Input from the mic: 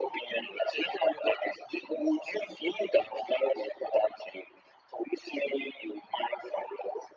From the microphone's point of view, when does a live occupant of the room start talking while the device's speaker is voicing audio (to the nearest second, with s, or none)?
none